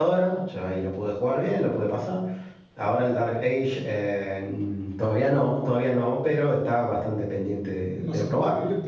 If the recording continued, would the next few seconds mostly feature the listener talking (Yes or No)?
Yes